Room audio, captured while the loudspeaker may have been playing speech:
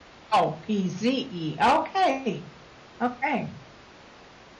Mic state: user only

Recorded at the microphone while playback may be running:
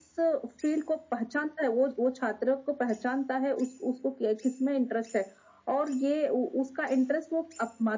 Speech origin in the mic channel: echo only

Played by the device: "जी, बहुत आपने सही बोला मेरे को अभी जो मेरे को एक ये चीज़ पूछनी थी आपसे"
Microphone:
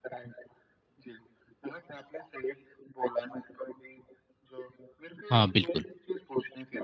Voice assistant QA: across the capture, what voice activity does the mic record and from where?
both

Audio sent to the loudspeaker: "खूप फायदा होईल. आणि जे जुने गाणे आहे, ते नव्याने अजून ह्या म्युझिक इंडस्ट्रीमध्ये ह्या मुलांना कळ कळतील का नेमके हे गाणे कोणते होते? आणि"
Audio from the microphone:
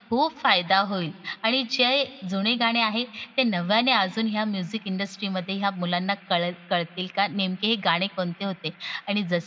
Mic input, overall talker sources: echo only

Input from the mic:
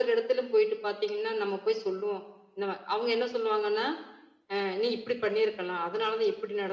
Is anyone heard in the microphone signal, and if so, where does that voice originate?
echo only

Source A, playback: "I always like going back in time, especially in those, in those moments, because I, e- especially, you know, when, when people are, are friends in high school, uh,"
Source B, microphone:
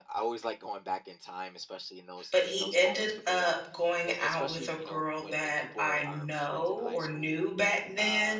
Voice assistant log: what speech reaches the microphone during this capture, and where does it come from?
both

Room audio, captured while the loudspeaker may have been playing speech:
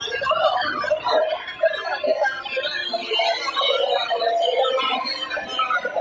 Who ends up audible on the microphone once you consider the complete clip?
echo only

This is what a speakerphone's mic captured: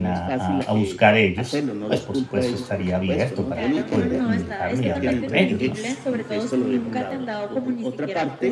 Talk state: both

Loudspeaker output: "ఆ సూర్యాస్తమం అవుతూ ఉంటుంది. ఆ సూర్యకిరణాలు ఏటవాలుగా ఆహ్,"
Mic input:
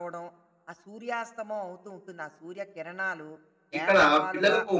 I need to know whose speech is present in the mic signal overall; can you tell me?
both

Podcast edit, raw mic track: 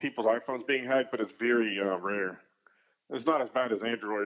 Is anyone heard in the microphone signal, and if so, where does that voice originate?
echo only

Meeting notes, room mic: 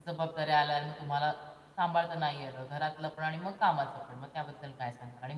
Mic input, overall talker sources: user only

